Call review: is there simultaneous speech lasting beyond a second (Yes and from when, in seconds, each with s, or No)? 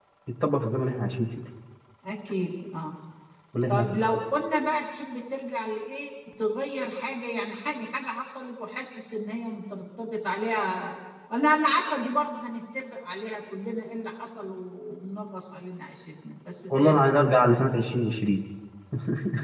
No